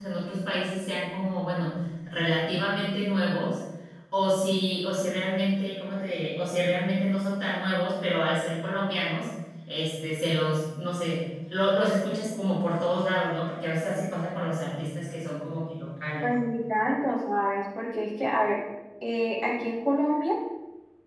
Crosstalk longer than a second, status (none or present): none